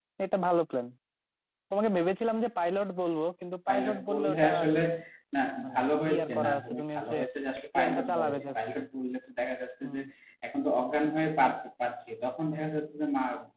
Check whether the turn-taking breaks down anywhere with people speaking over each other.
Yes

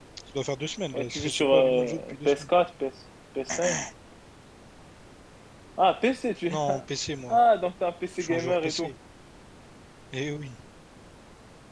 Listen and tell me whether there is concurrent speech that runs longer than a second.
Yes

